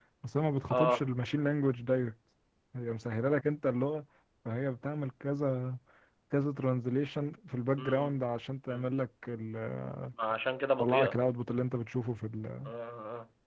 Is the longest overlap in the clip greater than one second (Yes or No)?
No